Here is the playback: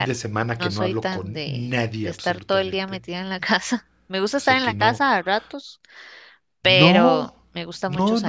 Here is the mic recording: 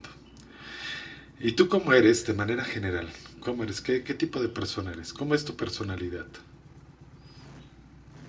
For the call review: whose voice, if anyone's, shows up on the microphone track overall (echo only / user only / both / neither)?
user only